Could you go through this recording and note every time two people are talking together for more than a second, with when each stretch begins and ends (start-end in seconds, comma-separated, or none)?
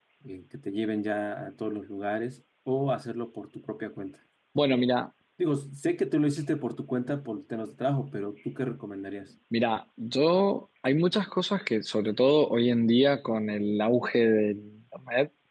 none